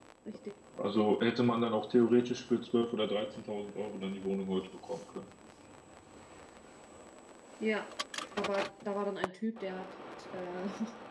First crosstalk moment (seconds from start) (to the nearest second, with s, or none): none